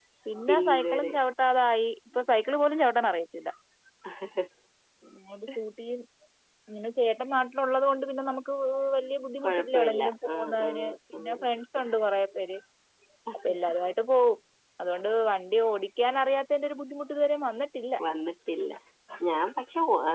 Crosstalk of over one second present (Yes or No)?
Yes